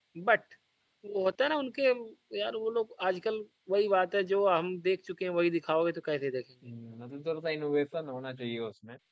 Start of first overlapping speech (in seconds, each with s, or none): none